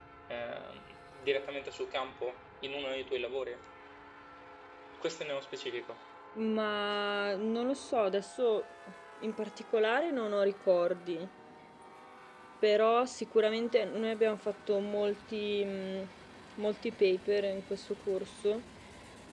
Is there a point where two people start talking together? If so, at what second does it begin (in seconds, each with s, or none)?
none